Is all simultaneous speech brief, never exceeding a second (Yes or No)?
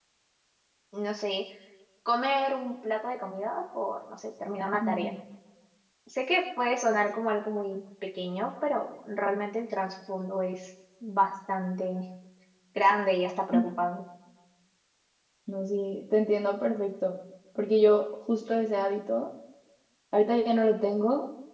Yes